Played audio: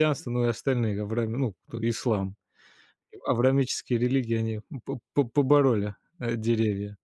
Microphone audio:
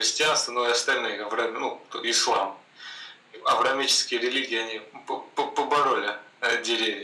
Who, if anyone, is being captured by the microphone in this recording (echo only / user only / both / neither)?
echo only